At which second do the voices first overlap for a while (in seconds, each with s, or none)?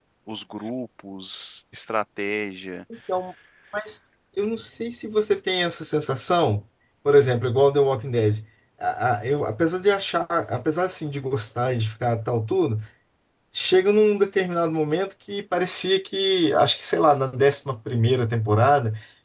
none